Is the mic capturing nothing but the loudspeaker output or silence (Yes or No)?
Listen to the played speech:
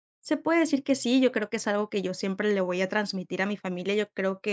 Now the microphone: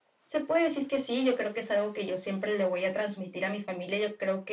Yes